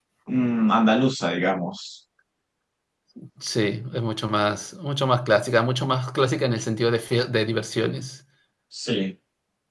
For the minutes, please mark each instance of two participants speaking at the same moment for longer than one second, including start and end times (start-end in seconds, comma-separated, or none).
none